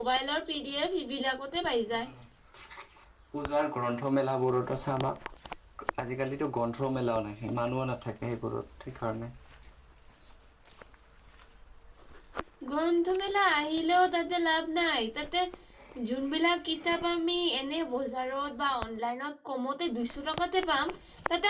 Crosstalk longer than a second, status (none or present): none